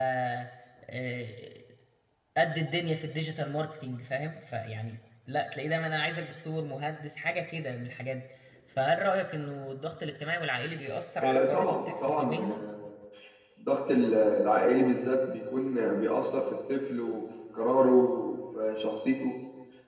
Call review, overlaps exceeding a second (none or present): present